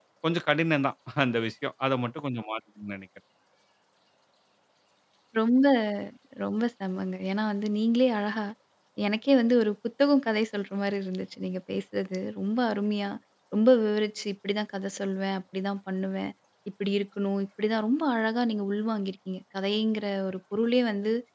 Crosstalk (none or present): none